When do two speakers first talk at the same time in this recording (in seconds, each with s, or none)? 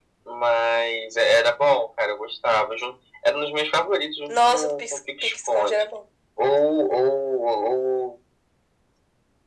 4.3 s